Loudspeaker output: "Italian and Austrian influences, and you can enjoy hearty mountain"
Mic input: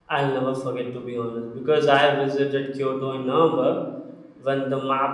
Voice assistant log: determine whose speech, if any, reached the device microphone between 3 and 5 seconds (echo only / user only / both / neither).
user only